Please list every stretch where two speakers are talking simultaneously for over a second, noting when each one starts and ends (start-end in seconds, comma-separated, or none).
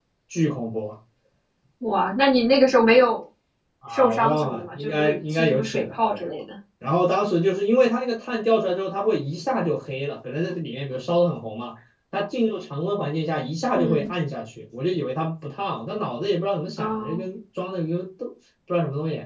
3.9-6.3